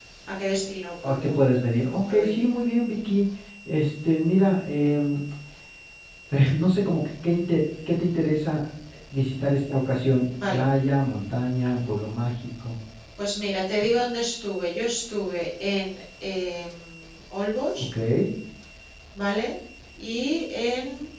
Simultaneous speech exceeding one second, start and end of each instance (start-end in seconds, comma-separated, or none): none